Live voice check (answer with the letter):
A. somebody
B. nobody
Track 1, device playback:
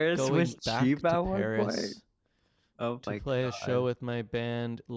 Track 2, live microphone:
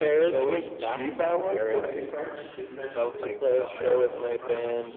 A